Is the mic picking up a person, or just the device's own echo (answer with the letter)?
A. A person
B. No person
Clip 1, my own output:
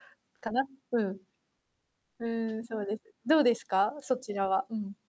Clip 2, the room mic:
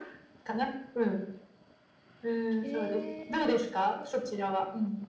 A